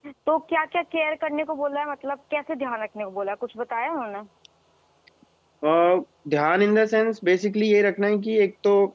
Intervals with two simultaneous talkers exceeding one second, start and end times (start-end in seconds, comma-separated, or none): none